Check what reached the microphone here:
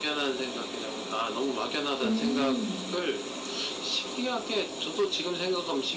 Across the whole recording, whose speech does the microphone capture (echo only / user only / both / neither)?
both